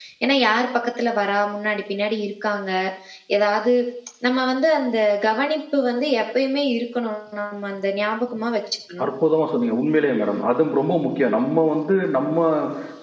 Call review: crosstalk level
none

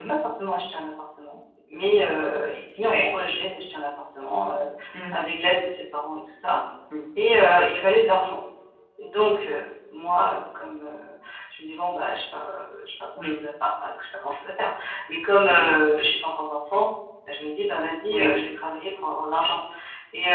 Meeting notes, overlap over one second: none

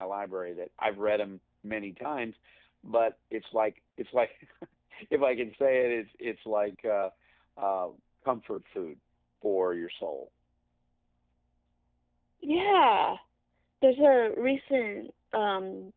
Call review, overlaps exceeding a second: none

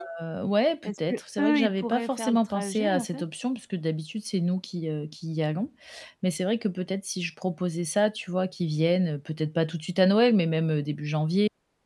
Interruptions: present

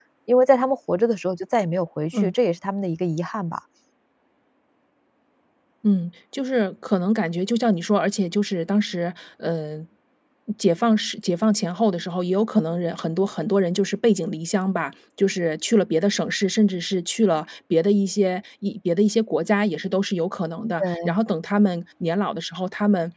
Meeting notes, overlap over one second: none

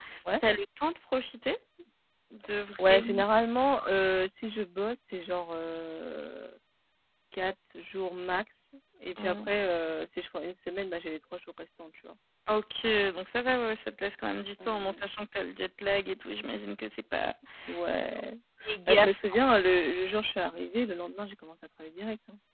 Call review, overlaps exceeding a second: none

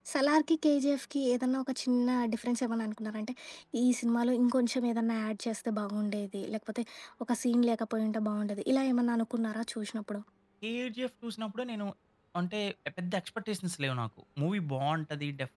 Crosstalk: none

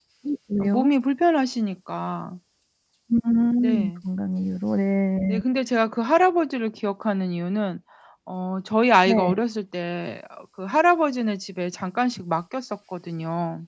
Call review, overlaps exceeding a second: none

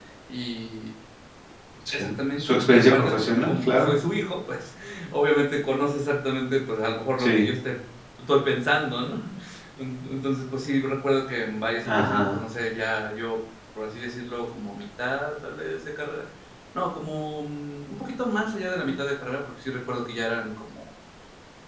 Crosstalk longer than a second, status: present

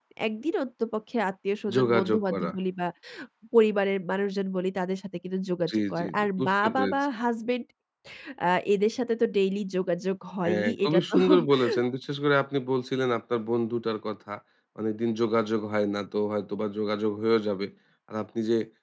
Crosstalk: present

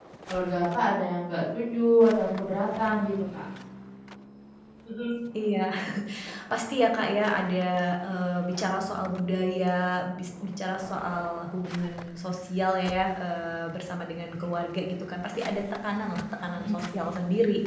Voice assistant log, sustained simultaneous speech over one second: none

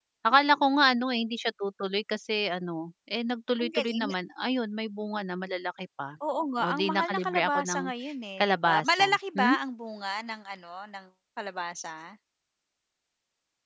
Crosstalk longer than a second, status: present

